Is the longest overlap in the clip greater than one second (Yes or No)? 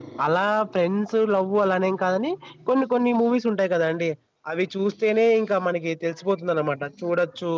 No